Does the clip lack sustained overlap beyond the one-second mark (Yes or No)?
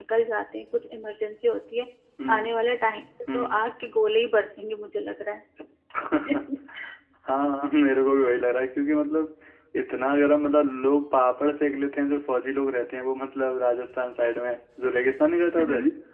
Yes